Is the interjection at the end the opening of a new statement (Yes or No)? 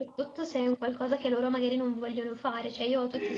No